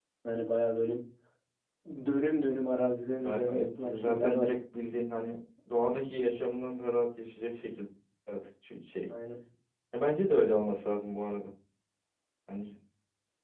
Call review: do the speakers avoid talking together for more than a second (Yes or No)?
No